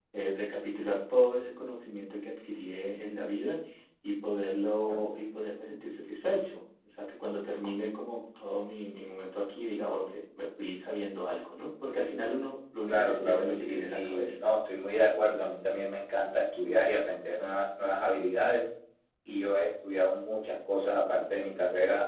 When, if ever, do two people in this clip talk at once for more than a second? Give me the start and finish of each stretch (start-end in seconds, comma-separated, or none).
12.9-14.4